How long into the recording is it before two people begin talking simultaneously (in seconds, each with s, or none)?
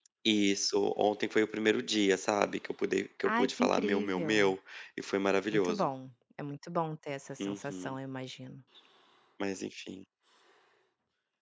3.2 s